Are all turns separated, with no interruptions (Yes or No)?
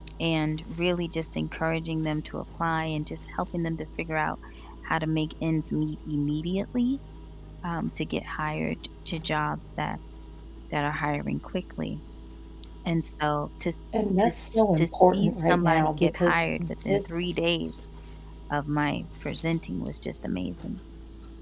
No